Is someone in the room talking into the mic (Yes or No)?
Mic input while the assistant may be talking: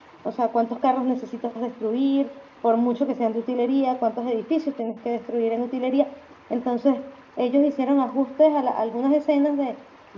Yes